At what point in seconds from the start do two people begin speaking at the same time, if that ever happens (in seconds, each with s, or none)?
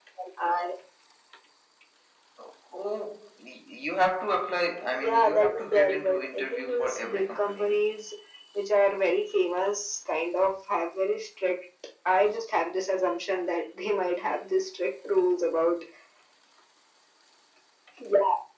4.9 s